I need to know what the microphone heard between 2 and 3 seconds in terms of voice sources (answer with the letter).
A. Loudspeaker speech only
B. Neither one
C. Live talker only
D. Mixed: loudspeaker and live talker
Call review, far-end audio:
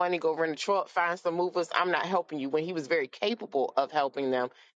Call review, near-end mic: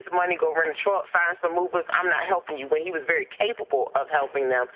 A